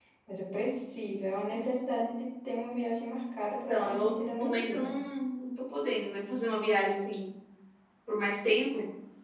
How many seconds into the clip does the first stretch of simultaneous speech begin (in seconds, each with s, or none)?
3.7 s